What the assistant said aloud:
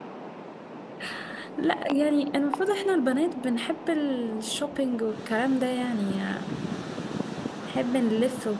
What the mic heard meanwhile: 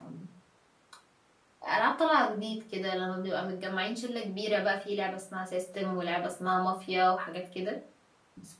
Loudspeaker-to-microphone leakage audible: No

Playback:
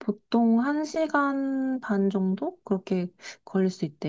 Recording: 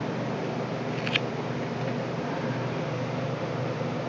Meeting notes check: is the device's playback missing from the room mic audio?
Yes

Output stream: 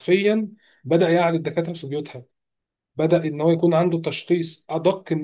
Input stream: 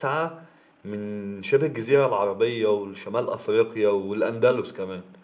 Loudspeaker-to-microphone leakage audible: No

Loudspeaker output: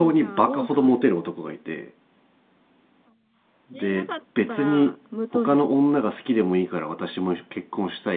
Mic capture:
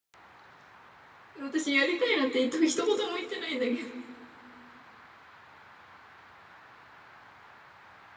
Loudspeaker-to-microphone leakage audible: No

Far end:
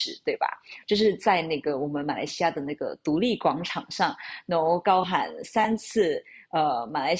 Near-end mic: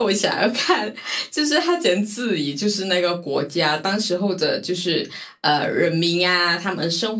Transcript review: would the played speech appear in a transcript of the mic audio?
No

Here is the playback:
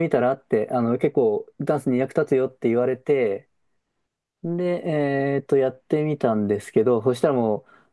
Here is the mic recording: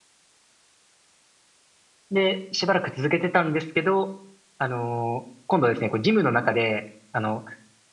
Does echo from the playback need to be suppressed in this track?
No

